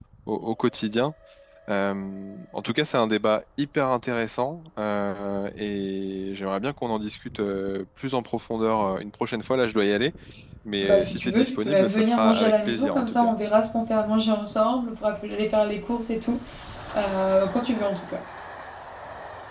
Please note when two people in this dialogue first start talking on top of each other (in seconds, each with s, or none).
10.8 s